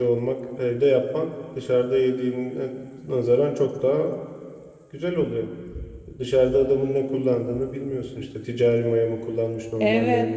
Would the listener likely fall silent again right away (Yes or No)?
No